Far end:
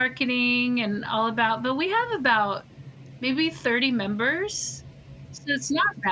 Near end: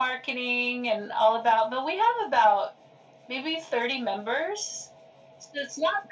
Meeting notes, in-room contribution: none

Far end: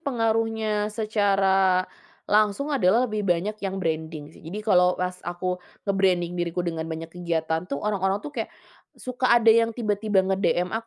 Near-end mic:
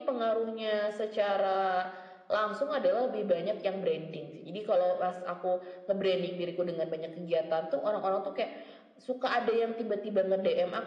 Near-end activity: none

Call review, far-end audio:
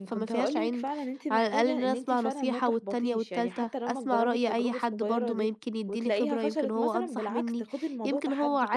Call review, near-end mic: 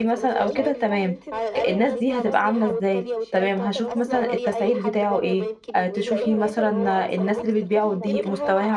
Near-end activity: present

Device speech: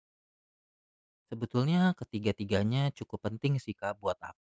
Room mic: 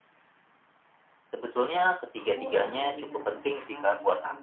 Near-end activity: present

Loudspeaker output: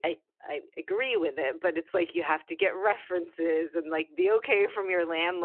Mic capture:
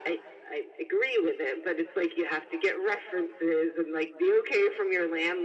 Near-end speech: none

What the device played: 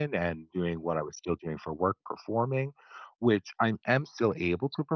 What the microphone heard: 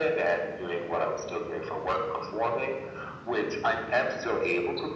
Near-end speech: none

